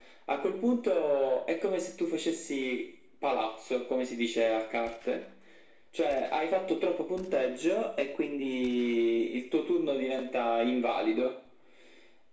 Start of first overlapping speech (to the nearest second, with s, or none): none